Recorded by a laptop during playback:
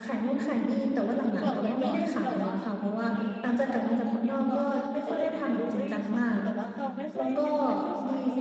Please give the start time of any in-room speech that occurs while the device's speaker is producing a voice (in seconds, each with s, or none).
1.4 s